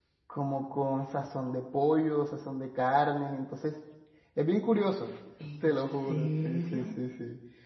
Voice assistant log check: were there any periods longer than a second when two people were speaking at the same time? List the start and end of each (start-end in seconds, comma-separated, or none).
5.6-6.9